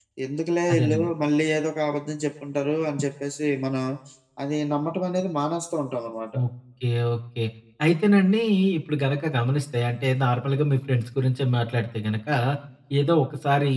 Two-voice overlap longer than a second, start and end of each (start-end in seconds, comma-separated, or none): none